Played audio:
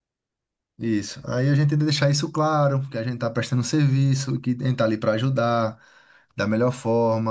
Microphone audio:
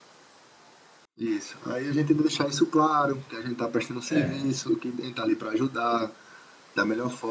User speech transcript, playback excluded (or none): É,